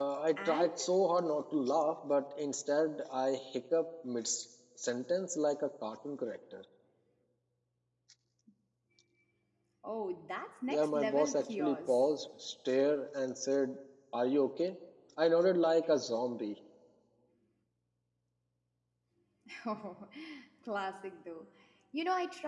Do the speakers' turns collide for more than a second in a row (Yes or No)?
Yes